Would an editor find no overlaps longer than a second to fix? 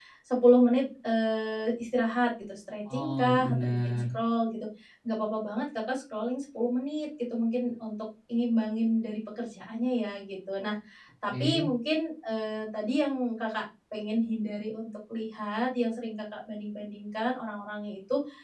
No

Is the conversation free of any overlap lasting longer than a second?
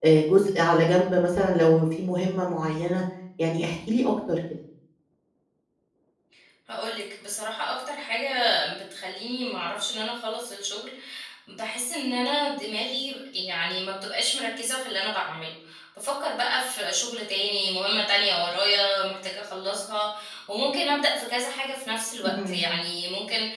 Yes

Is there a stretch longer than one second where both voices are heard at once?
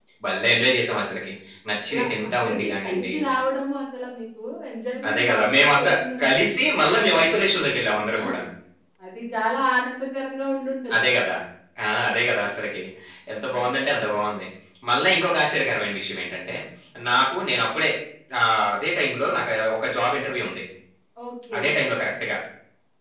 Yes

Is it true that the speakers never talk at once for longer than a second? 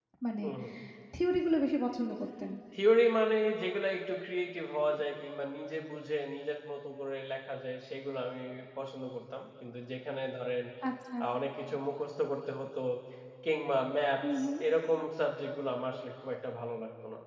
Yes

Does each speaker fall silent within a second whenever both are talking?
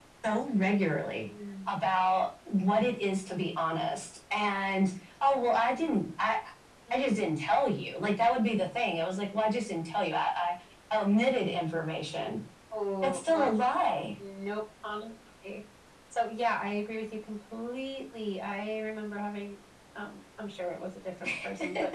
Yes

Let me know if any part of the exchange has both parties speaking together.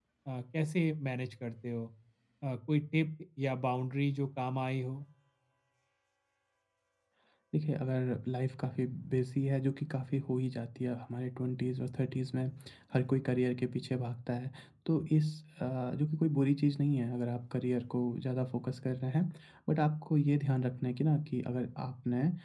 No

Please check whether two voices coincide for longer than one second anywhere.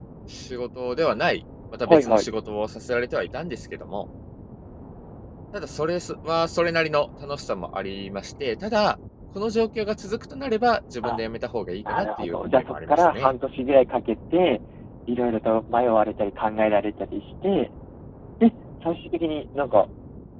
Yes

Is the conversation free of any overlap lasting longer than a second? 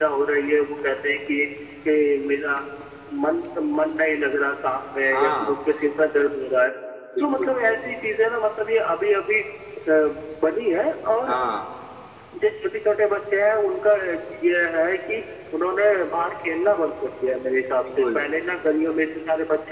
Yes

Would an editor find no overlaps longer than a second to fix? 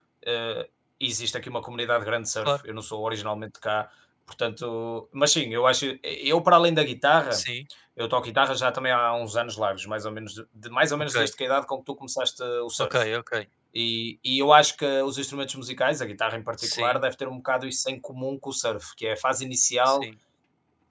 Yes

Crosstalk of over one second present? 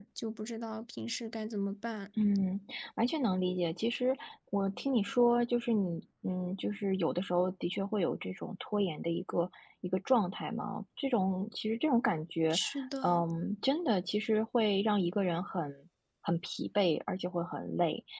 No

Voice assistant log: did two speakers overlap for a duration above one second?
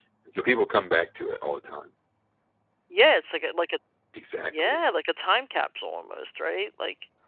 No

